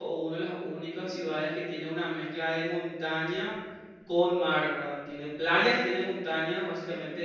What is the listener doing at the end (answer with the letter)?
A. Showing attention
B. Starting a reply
A